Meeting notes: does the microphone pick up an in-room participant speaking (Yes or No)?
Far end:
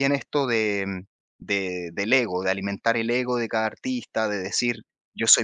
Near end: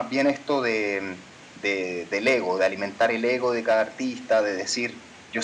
No